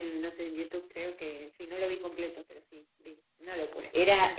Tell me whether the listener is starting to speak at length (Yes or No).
Yes